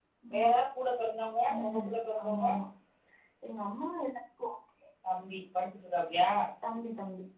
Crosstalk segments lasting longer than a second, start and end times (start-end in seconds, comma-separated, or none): none